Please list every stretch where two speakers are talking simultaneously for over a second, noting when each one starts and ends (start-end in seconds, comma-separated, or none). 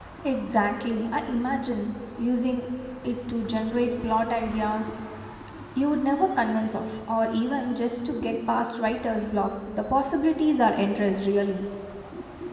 none